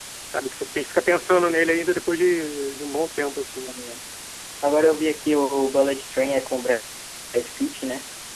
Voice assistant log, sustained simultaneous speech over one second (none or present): none